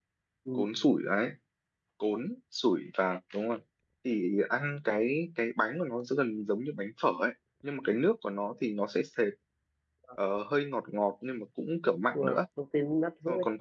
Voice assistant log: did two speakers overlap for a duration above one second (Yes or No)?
No